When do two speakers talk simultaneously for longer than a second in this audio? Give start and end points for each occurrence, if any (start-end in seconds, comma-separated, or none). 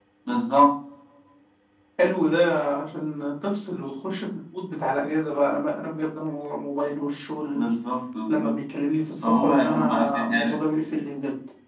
9.2-10.6